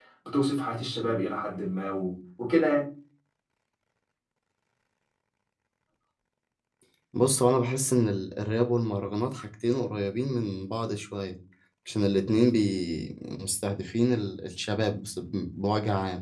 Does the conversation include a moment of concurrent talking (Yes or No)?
No